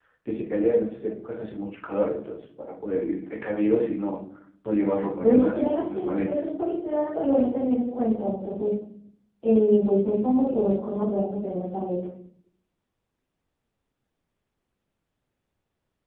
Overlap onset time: 5 s

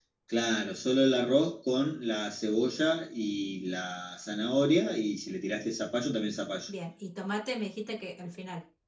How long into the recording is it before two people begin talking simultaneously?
none

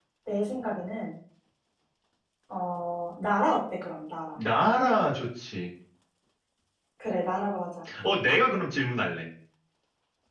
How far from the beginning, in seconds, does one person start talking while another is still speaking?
none

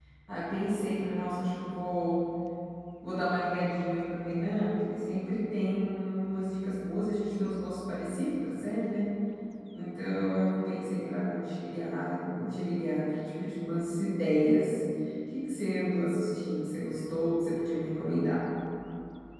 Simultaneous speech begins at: none

